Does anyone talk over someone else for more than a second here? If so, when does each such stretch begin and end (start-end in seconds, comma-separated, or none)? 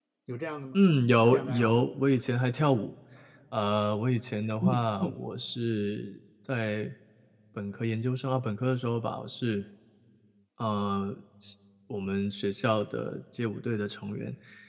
none